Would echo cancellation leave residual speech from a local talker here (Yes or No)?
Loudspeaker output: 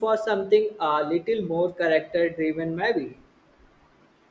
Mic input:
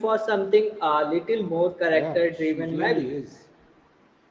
Yes